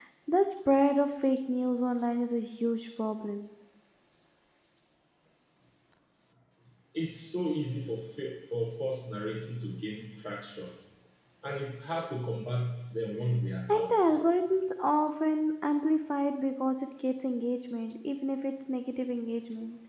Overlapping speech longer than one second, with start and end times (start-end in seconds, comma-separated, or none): none